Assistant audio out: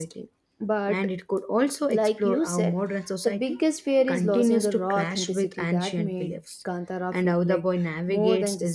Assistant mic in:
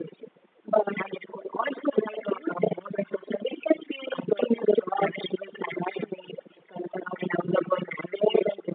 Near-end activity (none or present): none